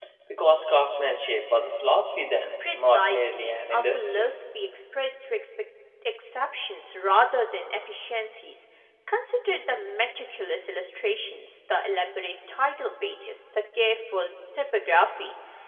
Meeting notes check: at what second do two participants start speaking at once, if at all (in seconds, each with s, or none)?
2.6 s